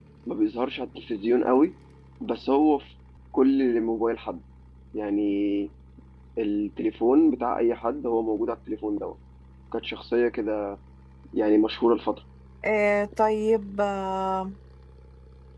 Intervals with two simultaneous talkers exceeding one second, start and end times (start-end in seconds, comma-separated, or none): none